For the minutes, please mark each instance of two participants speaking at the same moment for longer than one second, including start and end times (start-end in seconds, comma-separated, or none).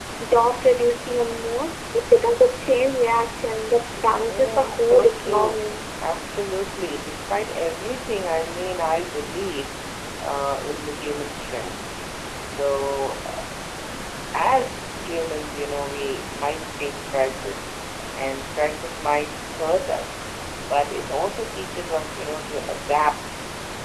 4.2-5.6